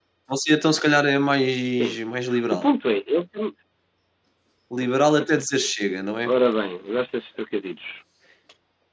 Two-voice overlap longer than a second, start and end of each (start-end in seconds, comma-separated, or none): none